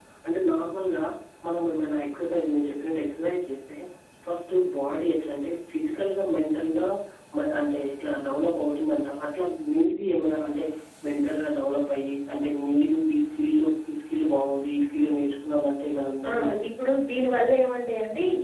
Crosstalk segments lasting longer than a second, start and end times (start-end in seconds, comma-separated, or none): none